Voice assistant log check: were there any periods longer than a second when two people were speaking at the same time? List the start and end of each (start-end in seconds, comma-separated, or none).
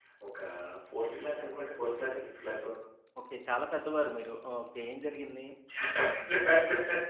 none